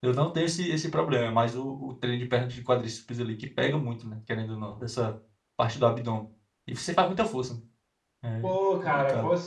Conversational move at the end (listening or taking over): taking over